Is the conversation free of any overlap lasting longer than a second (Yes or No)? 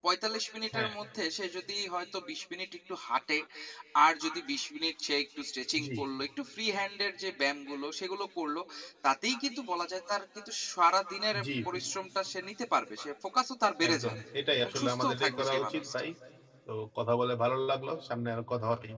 No